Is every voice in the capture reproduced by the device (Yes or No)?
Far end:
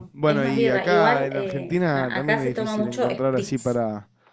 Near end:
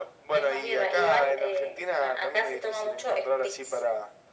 Yes